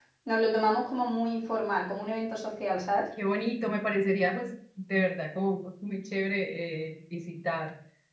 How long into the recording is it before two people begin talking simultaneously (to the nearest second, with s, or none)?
none